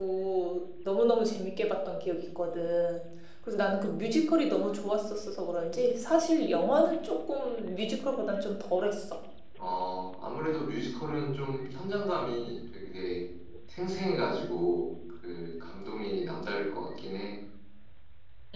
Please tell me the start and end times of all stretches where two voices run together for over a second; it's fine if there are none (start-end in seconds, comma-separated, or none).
none